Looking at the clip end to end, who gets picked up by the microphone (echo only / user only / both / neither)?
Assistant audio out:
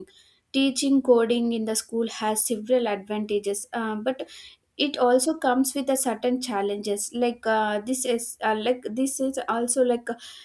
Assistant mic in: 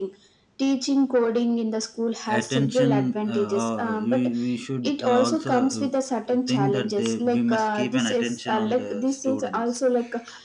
both